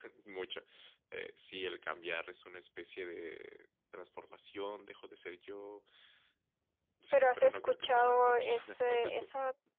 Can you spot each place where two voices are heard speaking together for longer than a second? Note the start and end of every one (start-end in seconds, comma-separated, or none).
7.1-9.3